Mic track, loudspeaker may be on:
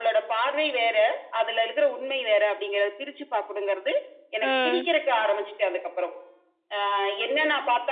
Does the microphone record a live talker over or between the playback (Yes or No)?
Yes